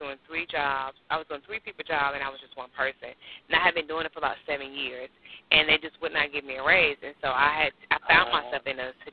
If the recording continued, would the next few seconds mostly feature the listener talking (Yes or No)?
No